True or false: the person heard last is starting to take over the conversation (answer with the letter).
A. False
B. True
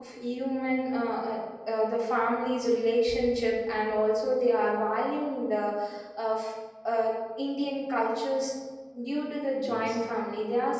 A